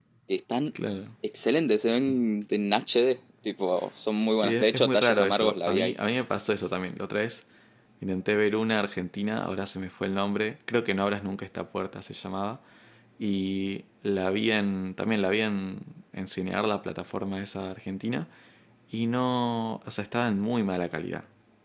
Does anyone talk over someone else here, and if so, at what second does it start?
4.3 s

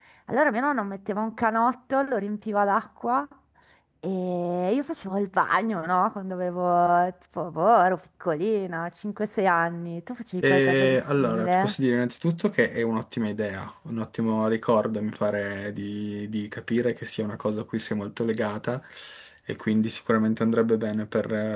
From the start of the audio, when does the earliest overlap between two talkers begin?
10.4 s

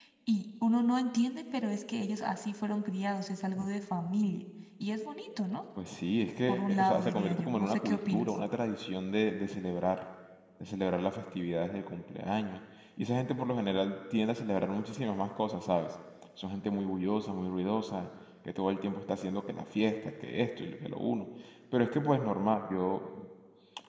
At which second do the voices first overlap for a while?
6.5 s

